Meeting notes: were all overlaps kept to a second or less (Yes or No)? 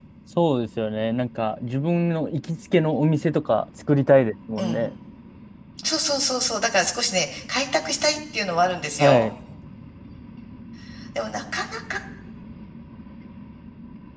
Yes